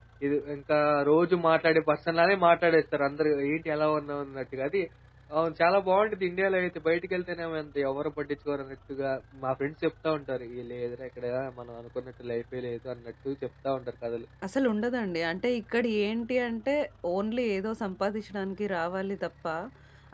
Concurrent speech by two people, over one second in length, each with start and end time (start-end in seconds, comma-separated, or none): none